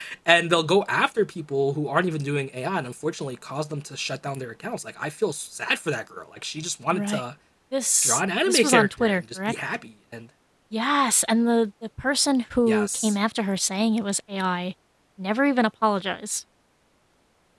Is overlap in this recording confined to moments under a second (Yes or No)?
No